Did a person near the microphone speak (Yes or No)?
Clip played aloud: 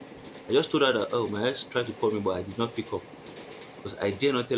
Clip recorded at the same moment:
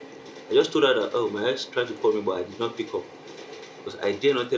No